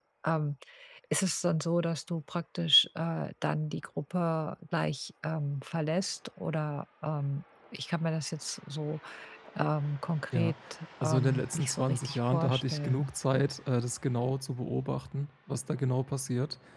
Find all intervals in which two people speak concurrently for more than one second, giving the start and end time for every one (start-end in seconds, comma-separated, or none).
11.0-13.1